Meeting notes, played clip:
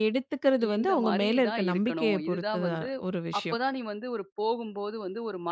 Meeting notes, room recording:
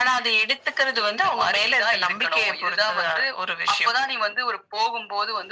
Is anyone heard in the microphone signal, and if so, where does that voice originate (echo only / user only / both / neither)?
echo only